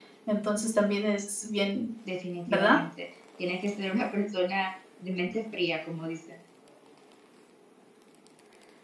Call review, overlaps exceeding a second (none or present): none